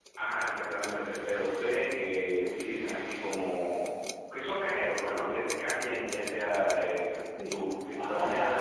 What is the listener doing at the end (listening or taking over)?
taking over